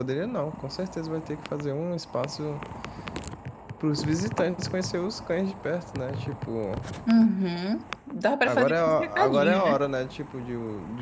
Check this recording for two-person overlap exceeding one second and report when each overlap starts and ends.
8.4-9.8

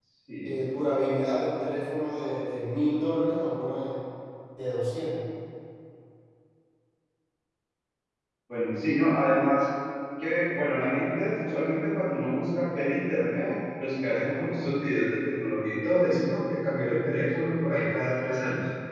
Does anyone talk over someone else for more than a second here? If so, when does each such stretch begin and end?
none

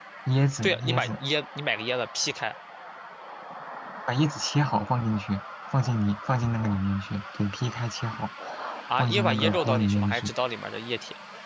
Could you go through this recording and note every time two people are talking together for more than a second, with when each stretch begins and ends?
9.0-10.3

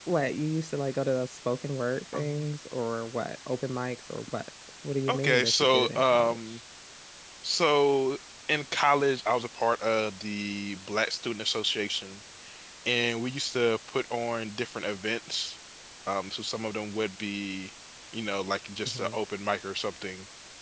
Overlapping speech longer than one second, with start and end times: 5.1-6.6

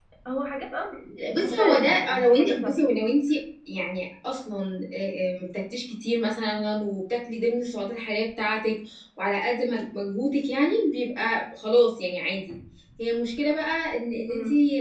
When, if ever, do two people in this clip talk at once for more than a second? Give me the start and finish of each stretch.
1.4-2.8

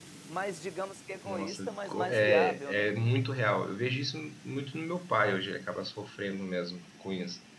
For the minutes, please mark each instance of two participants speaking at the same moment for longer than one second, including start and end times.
1.2-2.9

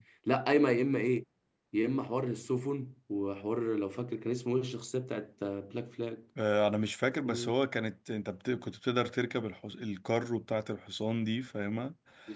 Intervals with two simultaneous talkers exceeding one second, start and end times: none

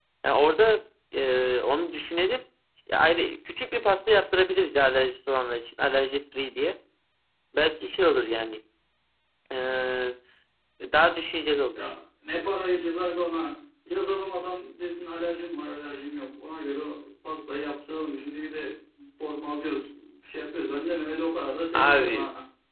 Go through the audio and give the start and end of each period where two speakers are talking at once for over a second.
none

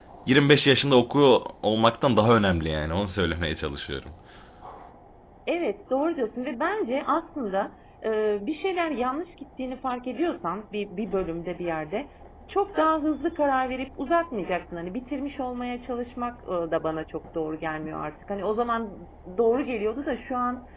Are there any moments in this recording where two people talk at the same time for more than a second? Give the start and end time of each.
none

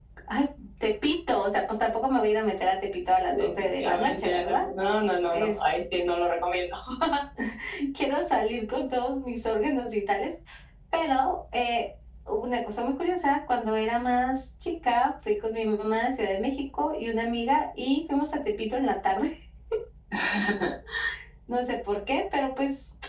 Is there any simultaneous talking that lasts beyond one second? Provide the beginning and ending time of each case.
3.3-4.6

